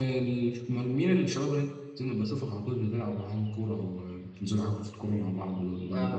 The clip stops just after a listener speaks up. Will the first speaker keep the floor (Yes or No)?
No